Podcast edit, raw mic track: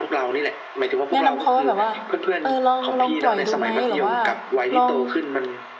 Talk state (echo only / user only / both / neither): both